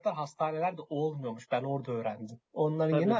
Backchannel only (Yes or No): No